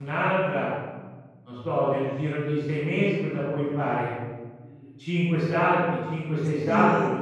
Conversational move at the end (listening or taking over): taking over